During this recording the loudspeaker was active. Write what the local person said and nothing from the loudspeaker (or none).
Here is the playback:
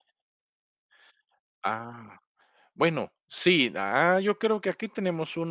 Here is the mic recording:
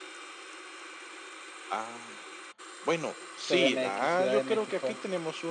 CDMX, Ciudad de México.